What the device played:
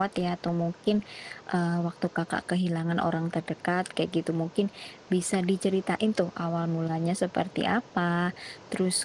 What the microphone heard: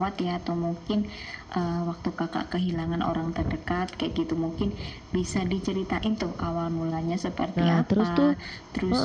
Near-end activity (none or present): present